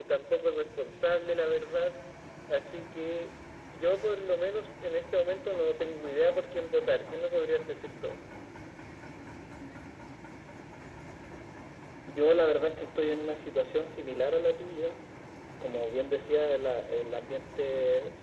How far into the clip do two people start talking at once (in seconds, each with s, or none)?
none